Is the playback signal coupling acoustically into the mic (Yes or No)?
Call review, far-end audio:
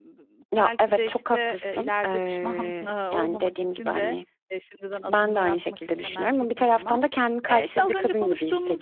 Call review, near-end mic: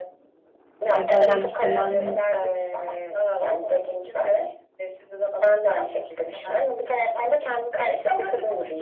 Yes